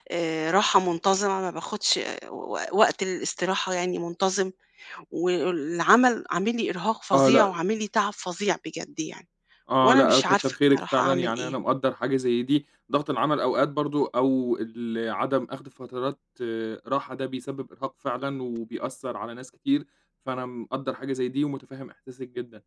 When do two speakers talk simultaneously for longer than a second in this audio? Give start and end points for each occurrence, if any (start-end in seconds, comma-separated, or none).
9.8-11.5